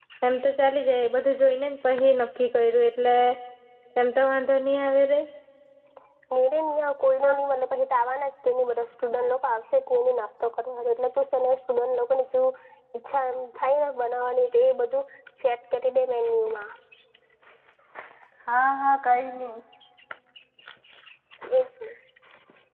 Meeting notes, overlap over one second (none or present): none